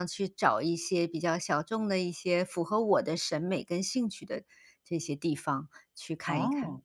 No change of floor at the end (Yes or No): No